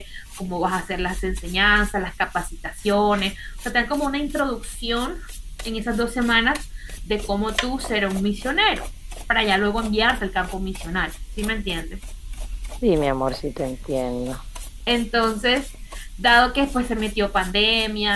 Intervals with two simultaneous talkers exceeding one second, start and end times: none

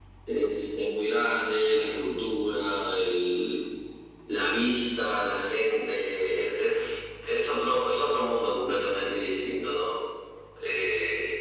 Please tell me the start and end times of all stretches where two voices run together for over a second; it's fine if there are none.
none

